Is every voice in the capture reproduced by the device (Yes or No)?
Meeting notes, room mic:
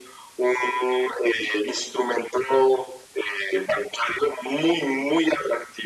Yes